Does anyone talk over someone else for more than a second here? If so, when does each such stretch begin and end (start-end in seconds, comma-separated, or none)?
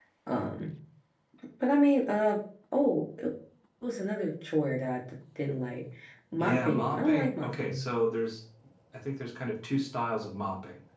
6.4-7.8